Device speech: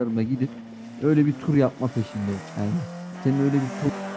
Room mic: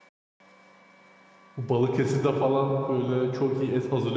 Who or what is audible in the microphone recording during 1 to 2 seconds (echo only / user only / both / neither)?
user only